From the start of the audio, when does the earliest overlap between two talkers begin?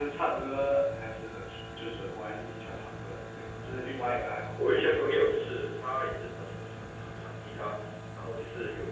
3.4 s

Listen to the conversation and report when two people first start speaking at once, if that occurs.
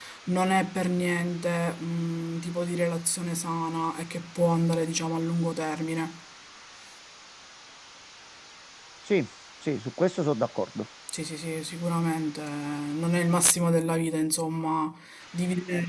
none

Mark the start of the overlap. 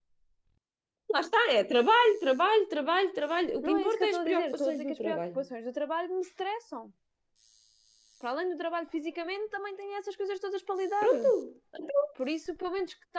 3.6 s

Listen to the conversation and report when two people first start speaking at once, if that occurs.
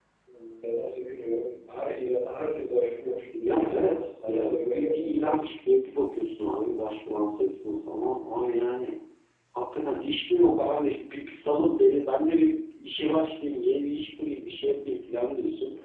3.4 s

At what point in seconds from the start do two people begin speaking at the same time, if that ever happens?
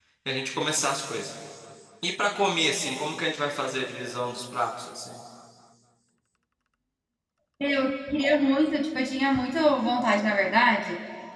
none

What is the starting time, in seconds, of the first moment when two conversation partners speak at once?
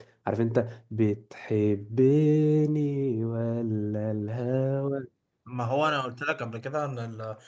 none

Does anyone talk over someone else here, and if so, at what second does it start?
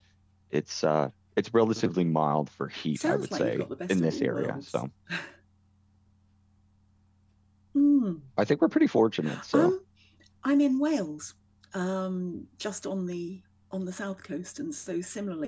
3.0 s

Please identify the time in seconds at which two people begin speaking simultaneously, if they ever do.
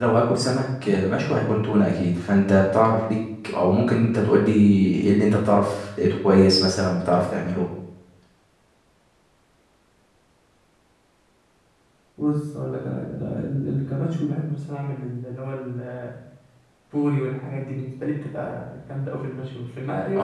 none

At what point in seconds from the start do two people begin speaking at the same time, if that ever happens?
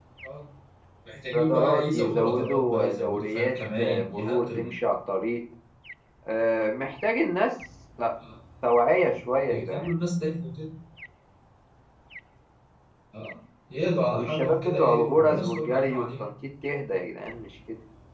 1.3 s

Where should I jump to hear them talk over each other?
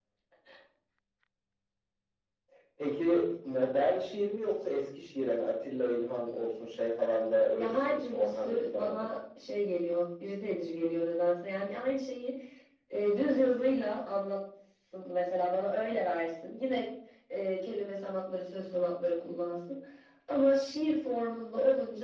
7.6 s

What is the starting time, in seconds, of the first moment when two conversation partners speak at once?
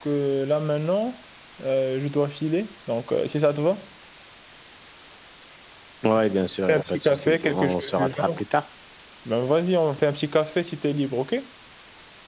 6.7 s

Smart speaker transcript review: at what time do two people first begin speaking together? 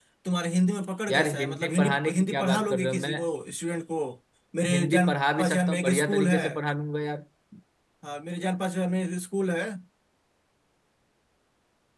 1.1 s

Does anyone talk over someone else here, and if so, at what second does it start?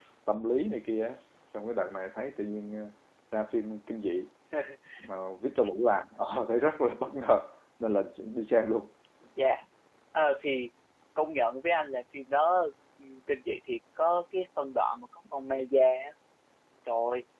none

